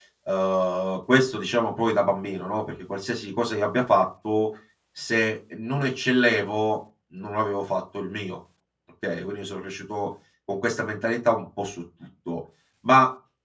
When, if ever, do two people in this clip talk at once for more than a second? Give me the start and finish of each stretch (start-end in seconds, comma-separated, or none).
none